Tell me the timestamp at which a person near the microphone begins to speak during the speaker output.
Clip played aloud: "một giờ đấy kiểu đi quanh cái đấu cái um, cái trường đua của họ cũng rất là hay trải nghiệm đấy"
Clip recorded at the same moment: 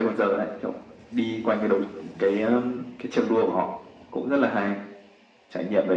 none

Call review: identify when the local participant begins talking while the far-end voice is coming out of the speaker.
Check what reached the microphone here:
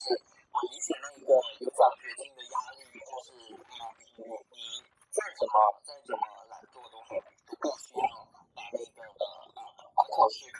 none

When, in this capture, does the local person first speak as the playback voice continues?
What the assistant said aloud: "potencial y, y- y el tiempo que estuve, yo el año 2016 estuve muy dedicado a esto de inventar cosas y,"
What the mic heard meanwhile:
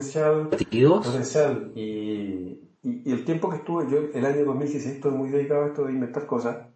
1 s

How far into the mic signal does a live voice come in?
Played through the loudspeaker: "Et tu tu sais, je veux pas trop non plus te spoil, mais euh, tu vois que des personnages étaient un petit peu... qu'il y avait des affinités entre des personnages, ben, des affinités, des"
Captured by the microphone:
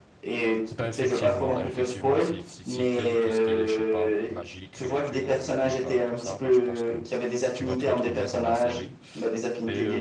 1 s

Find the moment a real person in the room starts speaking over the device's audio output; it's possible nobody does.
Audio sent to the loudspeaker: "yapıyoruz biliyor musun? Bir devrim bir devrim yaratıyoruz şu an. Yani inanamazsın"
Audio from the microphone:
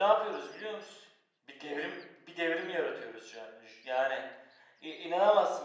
none

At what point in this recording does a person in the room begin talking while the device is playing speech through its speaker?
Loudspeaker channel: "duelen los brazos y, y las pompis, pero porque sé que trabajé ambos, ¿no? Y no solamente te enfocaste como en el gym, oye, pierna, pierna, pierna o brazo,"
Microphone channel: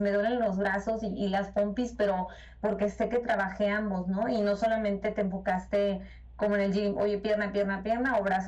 none

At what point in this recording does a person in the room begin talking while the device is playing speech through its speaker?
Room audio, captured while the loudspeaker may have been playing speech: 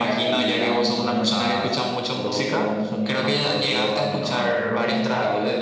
none

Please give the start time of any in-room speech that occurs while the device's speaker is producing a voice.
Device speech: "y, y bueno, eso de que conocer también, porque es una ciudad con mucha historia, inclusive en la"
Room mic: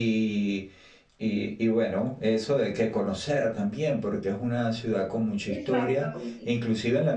5 s

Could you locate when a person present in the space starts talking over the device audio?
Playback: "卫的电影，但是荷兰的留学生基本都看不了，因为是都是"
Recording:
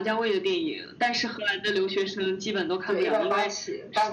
3 s

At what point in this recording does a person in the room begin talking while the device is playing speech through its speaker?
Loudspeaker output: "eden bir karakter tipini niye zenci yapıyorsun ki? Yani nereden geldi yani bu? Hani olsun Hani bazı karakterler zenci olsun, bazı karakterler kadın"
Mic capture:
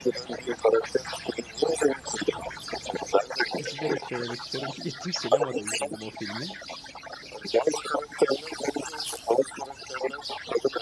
4 s

